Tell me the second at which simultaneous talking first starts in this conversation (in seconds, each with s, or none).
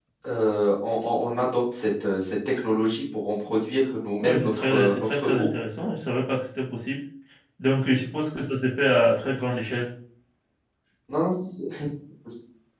4.2 s